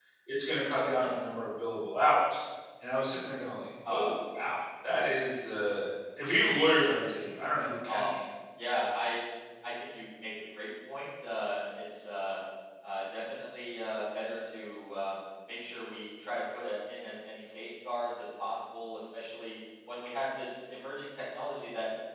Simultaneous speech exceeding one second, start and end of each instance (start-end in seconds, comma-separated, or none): none